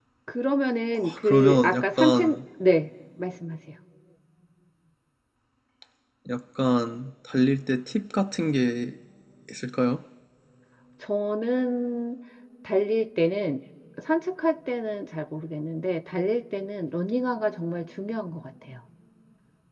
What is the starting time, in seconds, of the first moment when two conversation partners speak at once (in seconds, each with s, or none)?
0.9 s